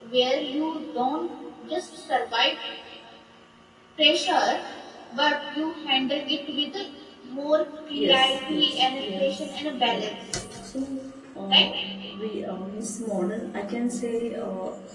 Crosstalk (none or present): present